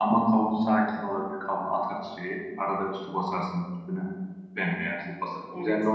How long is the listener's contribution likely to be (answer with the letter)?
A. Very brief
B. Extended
A